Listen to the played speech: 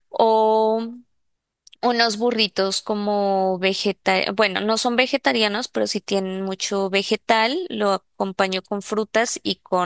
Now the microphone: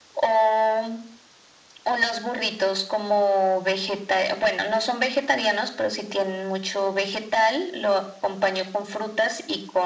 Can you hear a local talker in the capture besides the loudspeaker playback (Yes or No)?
No